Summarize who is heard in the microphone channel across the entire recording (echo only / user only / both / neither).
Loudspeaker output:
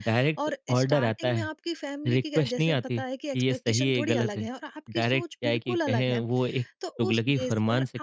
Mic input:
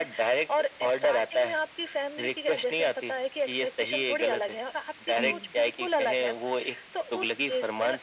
both